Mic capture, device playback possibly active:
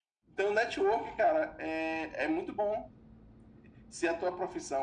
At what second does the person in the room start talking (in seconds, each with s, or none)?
none